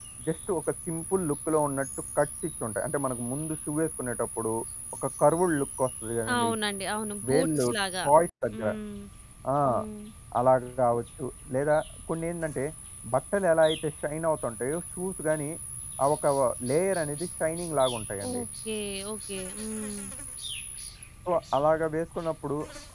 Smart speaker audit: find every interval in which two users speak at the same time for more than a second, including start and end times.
none

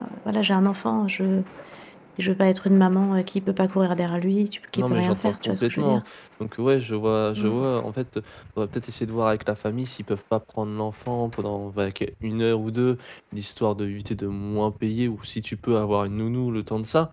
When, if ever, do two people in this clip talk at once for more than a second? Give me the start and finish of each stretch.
4.7-6.0

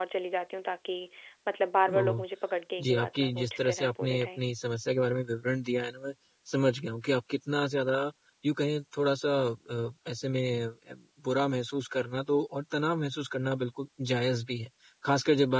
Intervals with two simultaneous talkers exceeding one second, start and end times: 2.8-4.4

